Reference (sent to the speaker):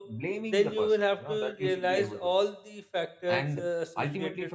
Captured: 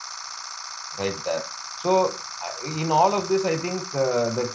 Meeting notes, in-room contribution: present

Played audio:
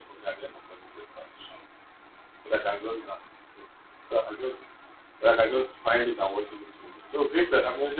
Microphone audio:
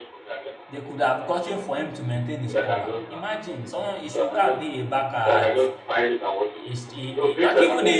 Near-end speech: present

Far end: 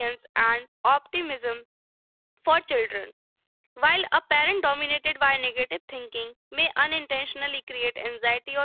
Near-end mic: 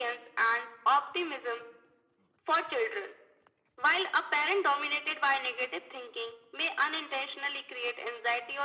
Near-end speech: none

